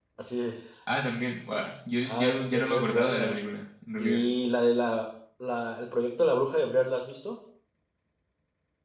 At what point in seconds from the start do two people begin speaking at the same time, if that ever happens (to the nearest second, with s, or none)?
2 s